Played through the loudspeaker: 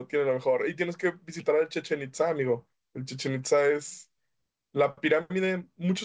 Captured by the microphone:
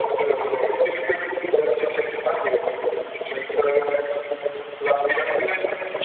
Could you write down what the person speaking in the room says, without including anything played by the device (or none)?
none